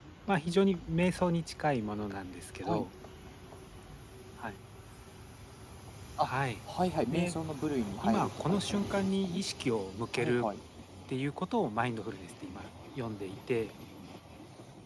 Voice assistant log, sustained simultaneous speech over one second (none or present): present